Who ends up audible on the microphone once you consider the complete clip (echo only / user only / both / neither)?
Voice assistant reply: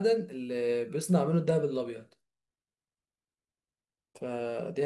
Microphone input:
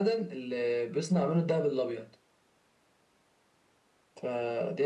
echo only